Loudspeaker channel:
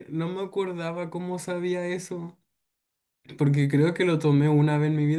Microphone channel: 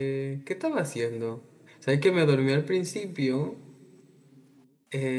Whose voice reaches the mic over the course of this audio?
user only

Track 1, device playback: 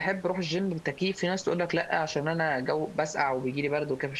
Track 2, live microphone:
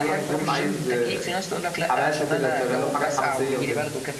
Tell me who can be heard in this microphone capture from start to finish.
both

